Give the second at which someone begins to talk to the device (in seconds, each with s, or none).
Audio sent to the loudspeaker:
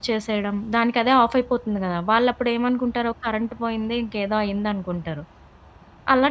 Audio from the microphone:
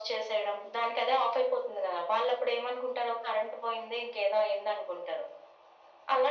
none